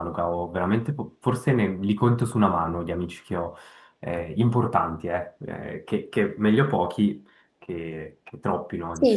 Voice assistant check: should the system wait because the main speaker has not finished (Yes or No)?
No